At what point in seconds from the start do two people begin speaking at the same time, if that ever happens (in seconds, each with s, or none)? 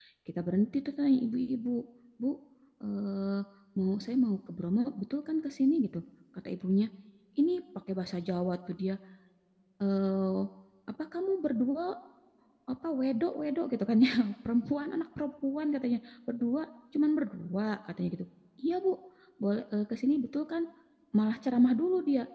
none